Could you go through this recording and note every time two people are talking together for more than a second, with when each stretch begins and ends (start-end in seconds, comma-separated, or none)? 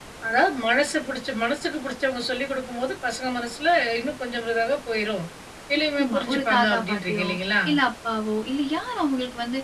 6.0-7.3